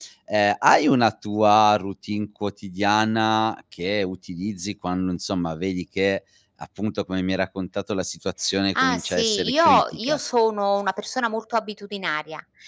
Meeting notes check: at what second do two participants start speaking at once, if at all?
8.8 s

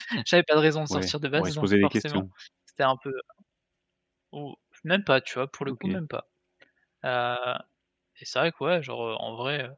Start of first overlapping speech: 0.9 s

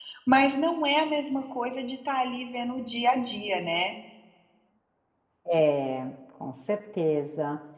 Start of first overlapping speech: none

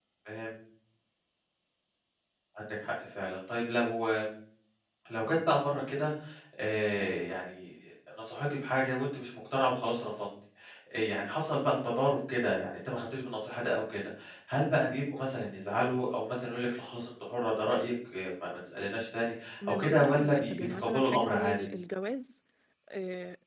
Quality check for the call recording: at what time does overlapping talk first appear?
19.6 s

